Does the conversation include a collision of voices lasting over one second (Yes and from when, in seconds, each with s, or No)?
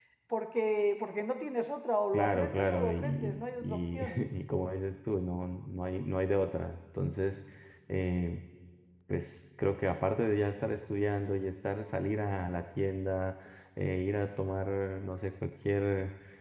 Yes, from 2.1 s